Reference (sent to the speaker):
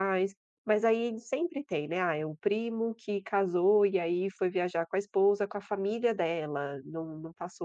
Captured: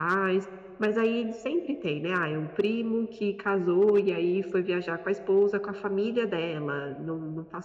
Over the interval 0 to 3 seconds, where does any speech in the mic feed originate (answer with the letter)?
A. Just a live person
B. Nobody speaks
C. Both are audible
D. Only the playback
D